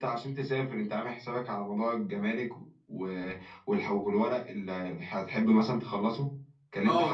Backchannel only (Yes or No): No